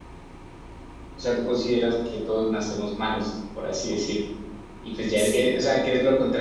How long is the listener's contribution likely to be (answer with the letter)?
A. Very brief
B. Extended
A